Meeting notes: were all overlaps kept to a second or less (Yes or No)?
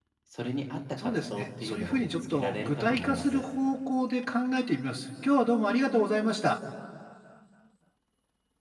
No